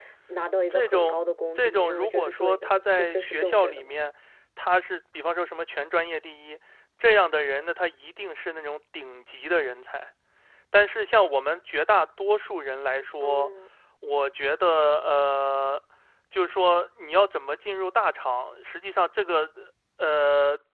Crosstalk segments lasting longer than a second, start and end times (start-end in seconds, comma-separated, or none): 1.6-4.0